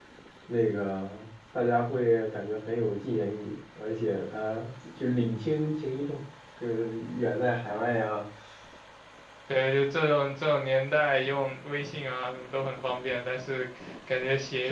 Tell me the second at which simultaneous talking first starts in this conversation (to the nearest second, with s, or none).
none